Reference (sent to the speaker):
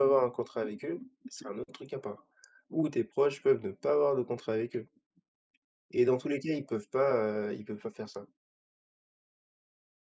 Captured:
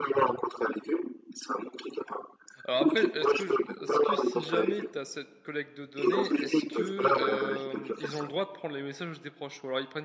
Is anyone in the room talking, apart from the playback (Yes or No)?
Yes